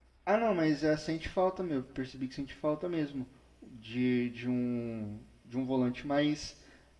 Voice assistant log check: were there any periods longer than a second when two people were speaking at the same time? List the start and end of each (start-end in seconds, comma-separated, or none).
none